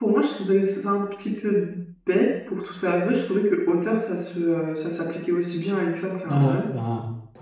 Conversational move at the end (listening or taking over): taking over